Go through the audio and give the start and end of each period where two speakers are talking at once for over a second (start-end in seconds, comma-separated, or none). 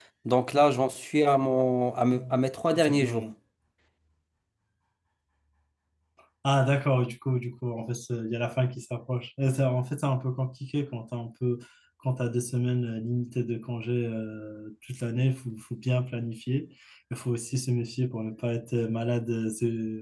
none